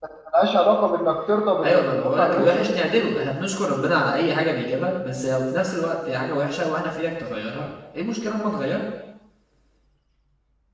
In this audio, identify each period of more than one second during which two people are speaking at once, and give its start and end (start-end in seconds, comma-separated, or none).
1.6-3.1